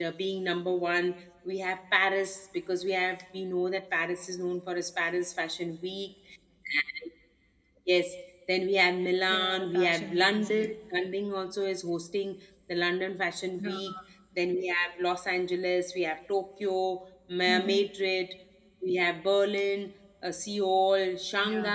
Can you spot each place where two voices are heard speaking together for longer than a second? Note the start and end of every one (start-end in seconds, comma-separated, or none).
9.3-10.7